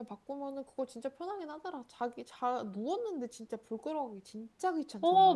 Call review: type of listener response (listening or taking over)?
taking over